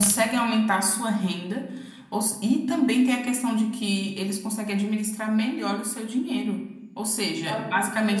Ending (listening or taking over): listening